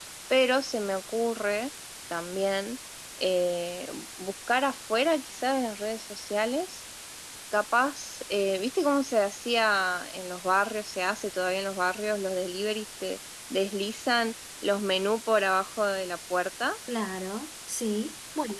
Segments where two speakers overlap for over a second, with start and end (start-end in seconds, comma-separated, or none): none